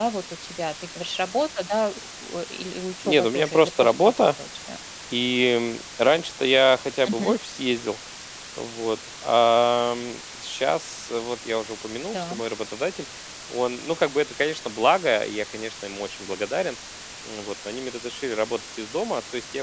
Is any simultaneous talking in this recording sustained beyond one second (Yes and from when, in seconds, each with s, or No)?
Yes, from 3.0 s